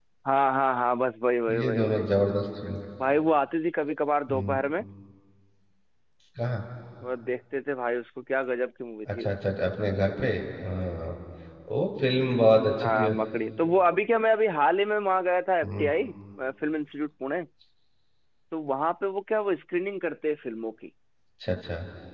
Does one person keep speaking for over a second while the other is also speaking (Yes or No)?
No